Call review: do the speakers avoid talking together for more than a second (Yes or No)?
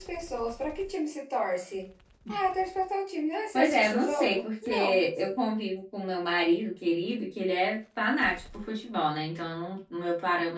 No